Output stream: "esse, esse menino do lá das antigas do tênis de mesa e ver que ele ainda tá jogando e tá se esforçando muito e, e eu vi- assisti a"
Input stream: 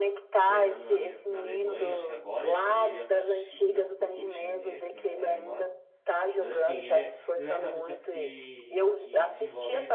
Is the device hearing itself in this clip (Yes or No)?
Yes